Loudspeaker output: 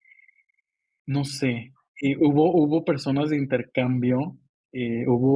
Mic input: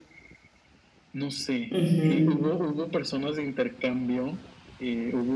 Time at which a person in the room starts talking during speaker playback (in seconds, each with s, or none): 1.7 s